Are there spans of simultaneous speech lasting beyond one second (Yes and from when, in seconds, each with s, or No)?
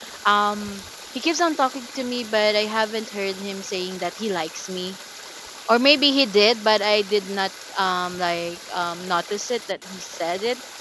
No